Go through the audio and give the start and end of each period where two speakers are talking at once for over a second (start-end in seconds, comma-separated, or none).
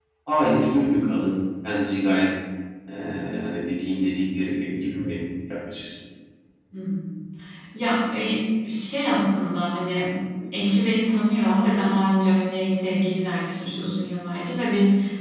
none